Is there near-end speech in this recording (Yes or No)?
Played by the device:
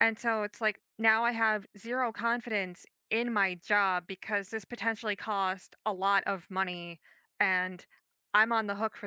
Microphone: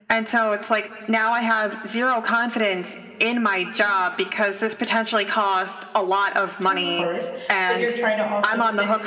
Yes